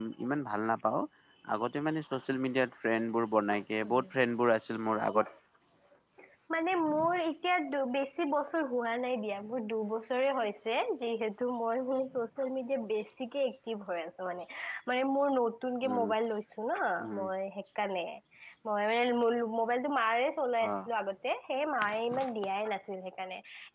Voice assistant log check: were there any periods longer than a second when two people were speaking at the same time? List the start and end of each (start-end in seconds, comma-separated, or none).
none